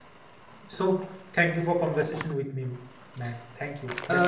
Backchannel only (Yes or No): No